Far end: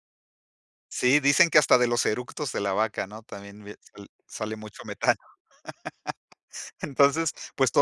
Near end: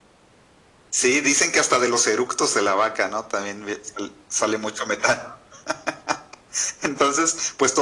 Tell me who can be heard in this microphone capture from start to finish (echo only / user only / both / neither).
echo only